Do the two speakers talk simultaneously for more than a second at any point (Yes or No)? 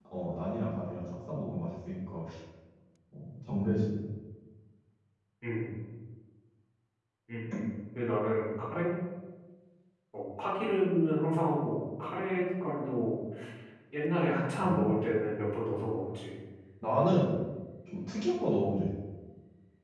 No